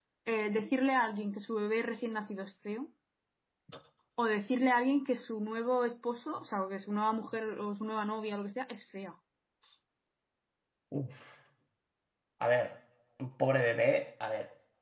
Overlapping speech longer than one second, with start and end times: none

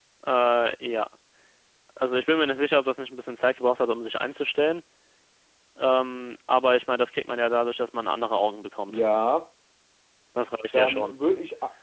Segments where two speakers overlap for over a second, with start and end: none

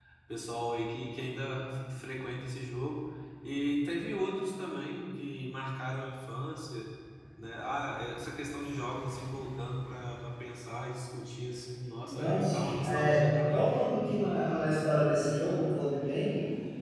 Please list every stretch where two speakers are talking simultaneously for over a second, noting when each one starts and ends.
12.1-13.7

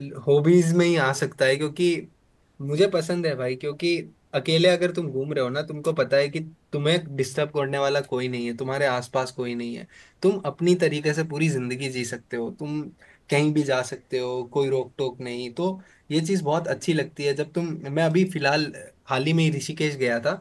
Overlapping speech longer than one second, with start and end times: none

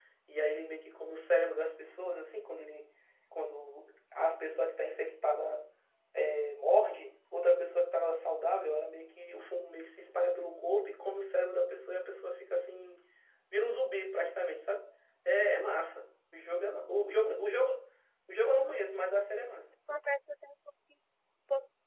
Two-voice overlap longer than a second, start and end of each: none

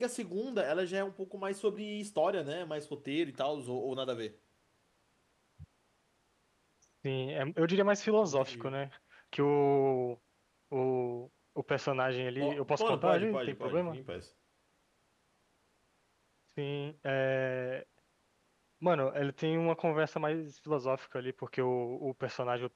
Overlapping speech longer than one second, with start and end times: 12.4-14.0

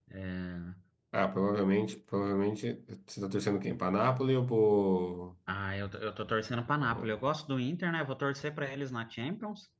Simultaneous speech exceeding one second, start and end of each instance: none

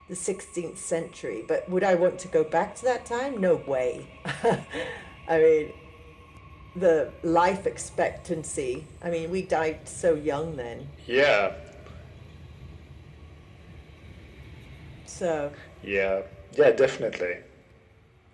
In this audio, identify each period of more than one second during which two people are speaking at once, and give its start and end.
none

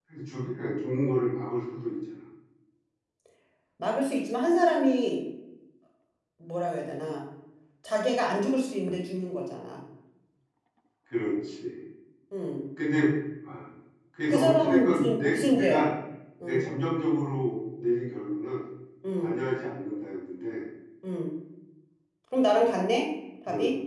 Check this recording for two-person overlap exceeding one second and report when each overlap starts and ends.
14.3-15.9

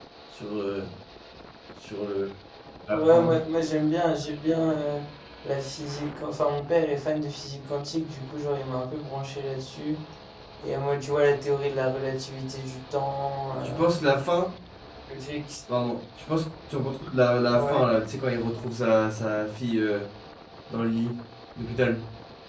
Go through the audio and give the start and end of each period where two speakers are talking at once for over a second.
none

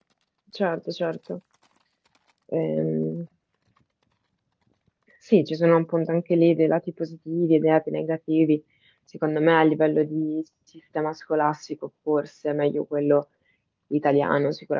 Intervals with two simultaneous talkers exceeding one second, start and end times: none

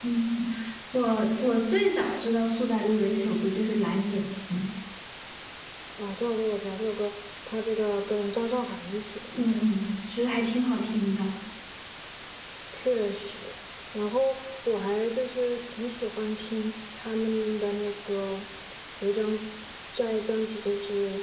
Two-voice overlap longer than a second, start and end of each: none

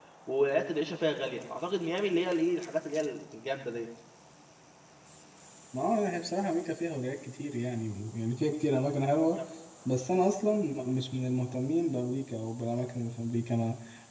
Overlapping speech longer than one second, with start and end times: none

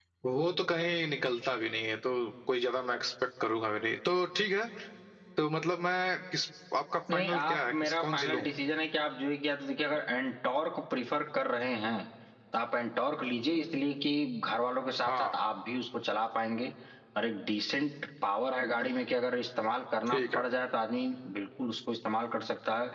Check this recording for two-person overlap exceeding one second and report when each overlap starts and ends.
7.1-8.5

